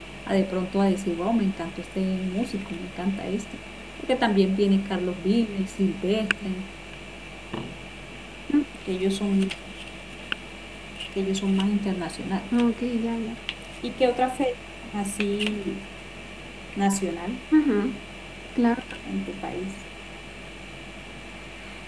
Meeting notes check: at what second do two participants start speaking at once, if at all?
none

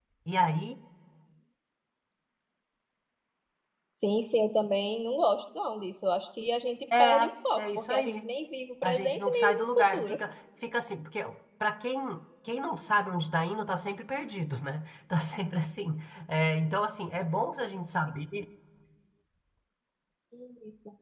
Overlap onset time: 7.0 s

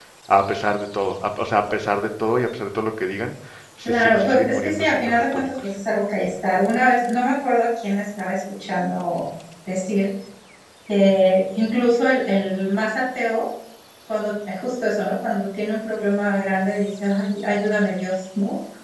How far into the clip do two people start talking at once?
3.9 s

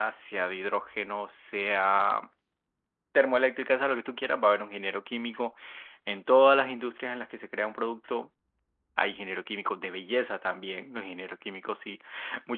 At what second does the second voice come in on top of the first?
none

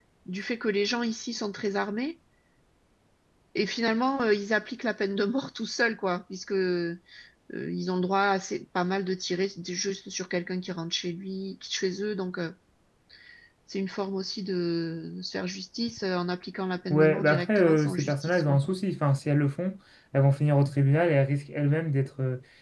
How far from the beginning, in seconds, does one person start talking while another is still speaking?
16.9 s

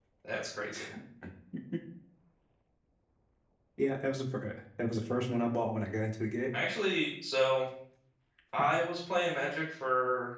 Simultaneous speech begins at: none

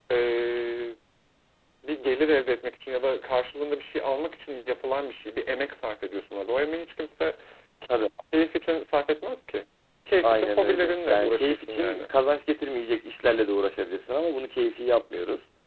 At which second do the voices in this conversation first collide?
10.2 s

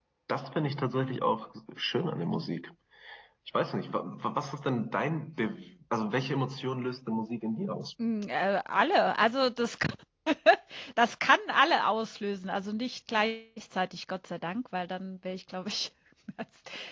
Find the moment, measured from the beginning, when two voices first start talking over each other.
none

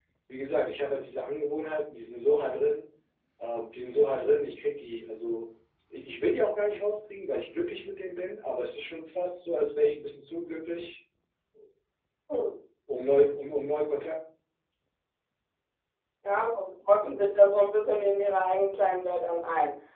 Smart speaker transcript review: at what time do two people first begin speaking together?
none

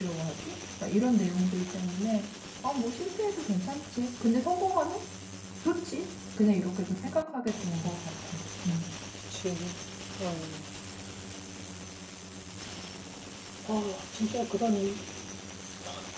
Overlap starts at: none

